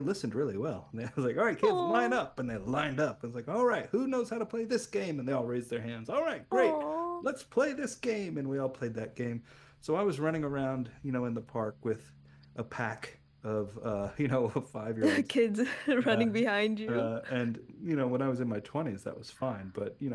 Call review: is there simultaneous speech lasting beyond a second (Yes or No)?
No